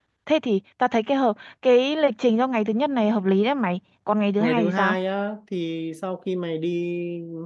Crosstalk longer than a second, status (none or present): none